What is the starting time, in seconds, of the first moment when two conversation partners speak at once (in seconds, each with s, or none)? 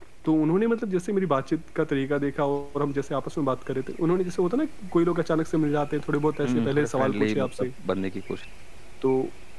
6.4 s